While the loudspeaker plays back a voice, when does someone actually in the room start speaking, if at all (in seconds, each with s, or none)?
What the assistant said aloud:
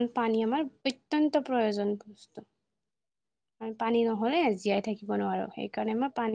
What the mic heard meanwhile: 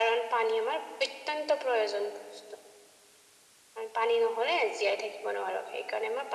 none